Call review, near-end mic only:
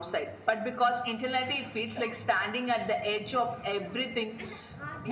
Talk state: both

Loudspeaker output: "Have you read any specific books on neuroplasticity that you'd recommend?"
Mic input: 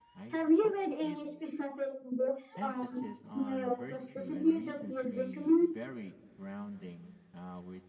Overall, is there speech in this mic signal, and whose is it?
both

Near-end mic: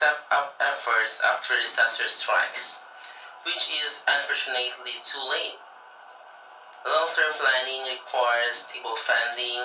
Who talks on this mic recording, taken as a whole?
echo only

